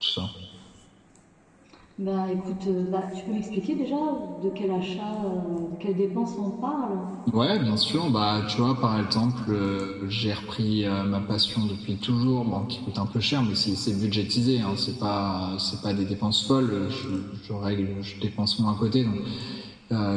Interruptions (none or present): none